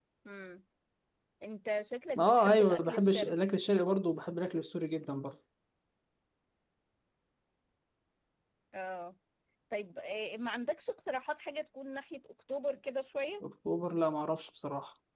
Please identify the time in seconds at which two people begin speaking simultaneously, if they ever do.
2.2 s

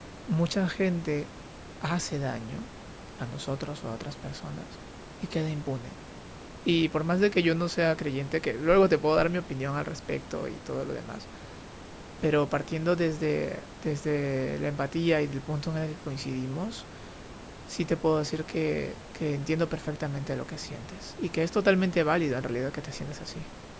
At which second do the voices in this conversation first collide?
none

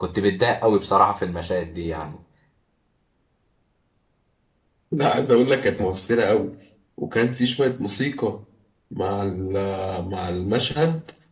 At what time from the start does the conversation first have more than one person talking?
none

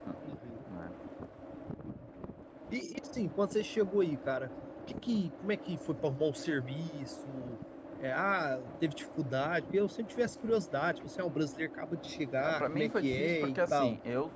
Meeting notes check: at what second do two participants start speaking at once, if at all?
12.4 s

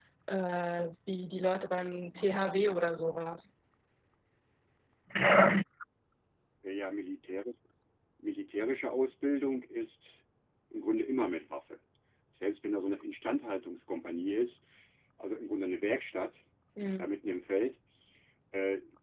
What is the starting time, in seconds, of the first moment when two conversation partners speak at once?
none

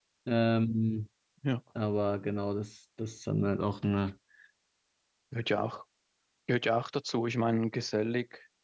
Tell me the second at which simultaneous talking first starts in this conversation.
none

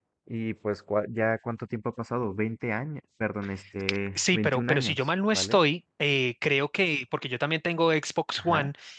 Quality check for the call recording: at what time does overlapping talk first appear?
4.2 s

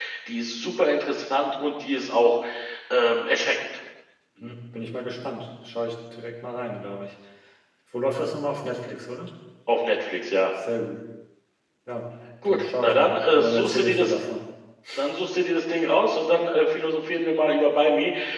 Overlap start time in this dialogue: 12.4 s

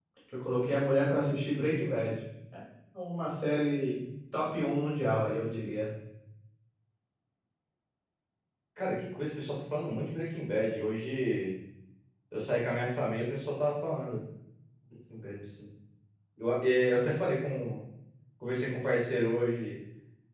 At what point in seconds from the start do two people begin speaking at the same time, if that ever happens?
none

